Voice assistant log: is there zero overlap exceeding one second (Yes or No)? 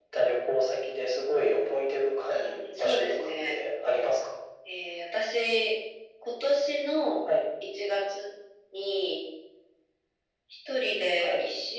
No